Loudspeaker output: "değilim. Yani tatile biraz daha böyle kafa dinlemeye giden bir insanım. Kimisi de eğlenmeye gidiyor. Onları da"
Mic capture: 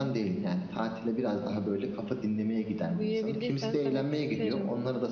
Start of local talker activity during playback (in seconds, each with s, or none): 2.9 s